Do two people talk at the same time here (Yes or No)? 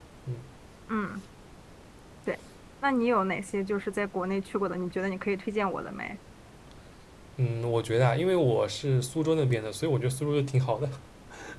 No